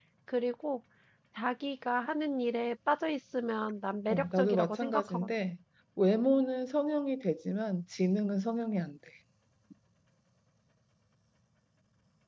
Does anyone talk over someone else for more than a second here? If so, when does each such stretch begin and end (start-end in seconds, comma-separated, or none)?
4.1-5.3